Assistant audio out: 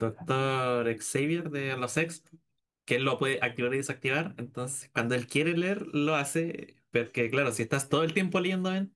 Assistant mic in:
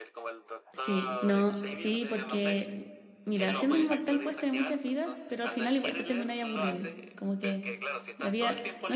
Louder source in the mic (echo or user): user